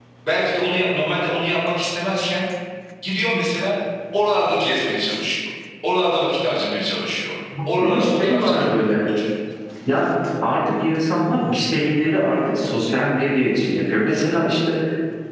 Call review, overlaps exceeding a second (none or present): present